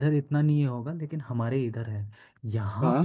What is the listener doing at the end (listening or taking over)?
listening